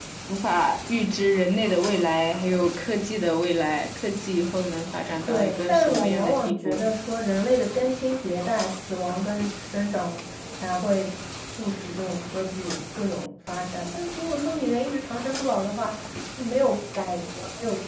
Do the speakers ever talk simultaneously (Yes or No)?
Yes